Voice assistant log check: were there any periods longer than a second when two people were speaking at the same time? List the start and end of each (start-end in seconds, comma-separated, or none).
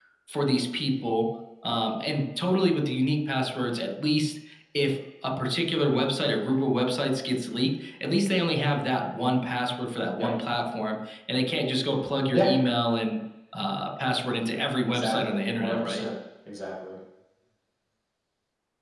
14.9-16.1